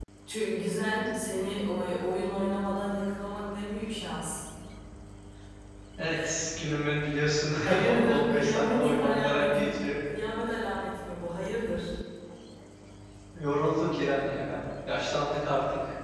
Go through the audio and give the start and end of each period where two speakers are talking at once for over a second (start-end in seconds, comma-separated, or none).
7.6-9.8